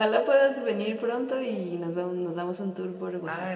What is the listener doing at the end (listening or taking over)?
taking over